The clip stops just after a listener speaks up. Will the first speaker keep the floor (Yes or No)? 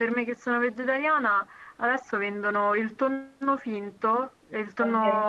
Yes